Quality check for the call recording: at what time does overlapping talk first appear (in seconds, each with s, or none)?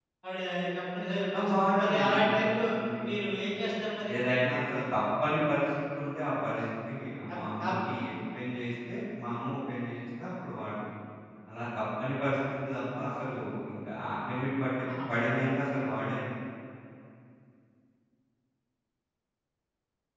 1.3 s